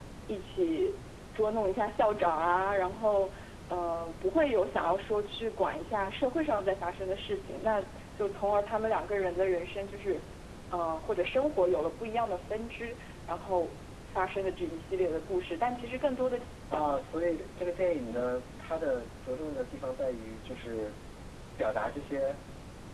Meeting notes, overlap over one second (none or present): none